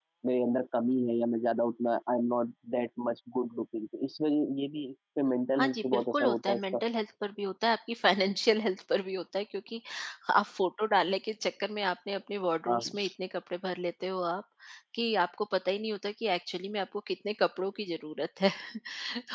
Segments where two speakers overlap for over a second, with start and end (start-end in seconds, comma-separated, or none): 5.6-6.8